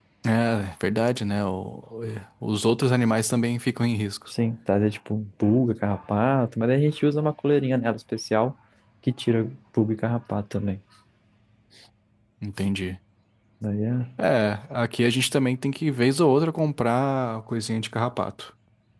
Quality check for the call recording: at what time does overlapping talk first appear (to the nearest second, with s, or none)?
none